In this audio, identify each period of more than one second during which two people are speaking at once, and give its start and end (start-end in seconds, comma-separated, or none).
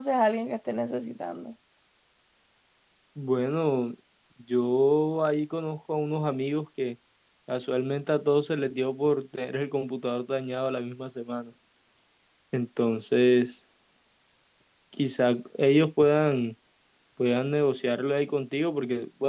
none